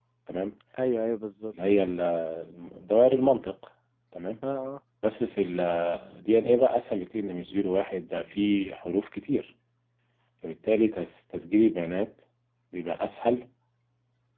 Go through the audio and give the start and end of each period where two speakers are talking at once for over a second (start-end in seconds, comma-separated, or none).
none